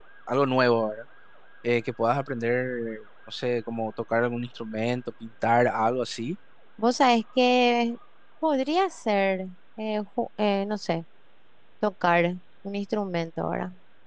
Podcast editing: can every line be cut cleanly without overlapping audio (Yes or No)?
Yes